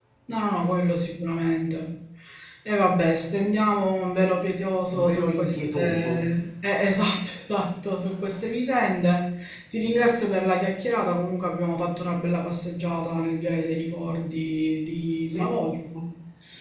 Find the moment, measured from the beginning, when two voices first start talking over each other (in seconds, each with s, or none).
4.9 s